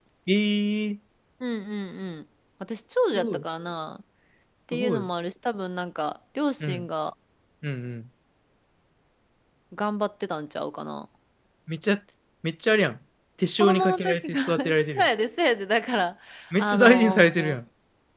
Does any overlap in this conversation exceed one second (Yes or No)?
Yes